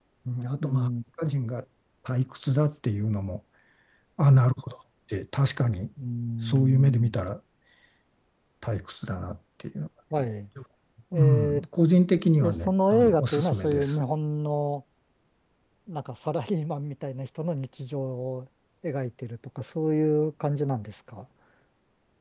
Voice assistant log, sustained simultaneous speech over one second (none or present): present